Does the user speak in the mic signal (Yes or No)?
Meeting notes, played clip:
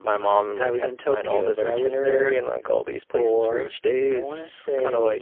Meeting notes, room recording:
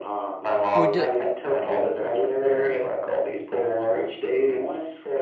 Yes